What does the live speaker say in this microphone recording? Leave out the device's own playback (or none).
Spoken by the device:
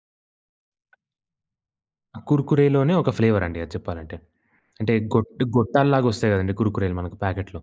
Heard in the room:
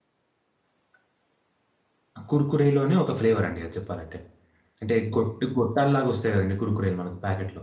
none